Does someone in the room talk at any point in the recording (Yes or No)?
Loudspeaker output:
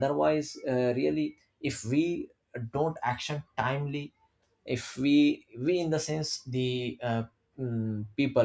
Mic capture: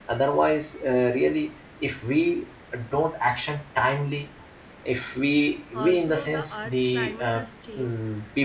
Yes